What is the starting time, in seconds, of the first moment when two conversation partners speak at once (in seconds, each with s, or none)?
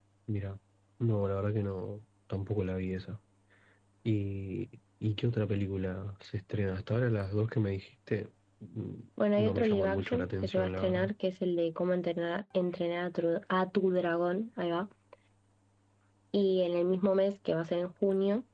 9.2 s